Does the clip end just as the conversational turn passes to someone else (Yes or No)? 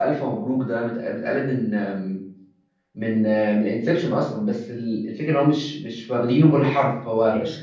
No